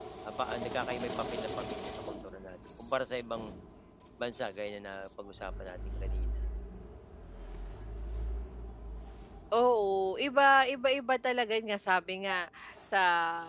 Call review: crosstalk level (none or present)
none